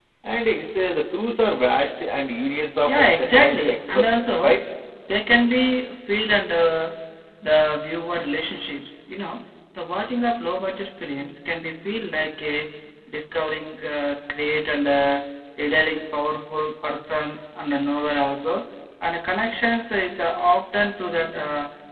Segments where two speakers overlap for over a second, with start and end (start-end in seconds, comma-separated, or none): 2.9-4.6